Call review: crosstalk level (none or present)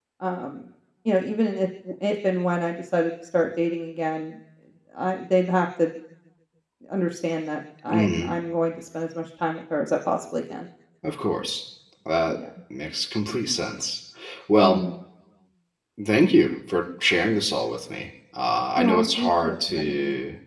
present